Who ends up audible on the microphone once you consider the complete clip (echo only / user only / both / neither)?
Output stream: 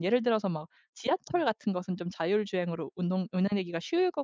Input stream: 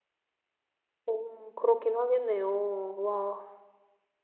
user only